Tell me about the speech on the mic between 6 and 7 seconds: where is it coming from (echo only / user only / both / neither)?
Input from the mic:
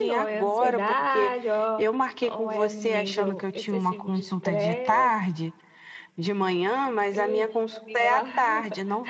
echo only